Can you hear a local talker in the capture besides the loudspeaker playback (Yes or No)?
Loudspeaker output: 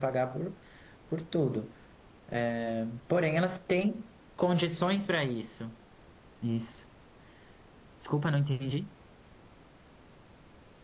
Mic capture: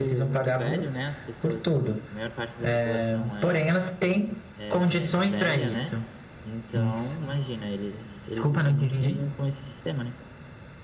Yes